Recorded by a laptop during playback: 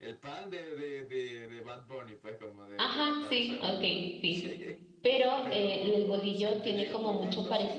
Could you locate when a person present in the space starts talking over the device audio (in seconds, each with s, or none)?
2.8 s